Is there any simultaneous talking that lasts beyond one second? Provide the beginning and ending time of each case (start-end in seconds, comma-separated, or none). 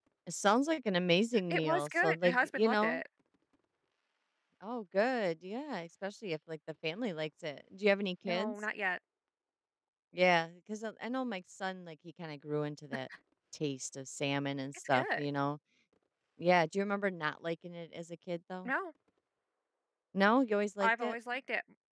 1.5-3.0